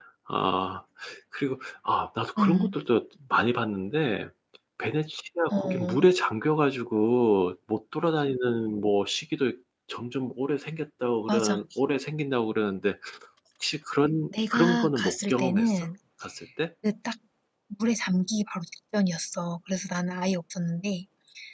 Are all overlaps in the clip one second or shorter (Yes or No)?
No